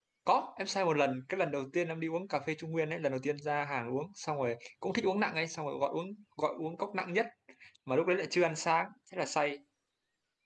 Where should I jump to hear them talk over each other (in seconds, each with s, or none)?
none